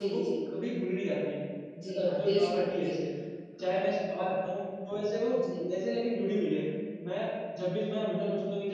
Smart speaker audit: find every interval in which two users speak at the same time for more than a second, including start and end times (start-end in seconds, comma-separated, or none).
1.9-3.1